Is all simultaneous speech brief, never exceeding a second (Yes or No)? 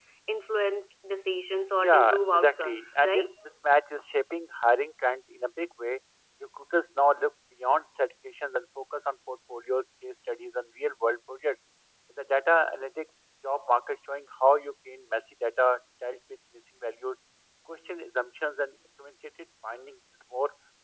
No